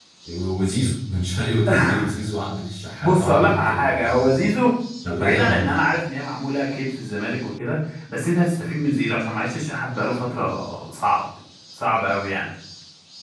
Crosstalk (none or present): present